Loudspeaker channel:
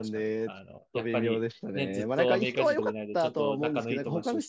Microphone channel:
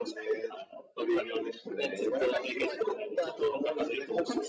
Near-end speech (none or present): none